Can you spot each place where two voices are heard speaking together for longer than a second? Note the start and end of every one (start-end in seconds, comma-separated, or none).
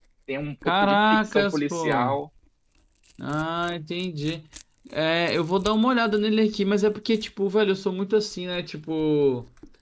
0.6-2.2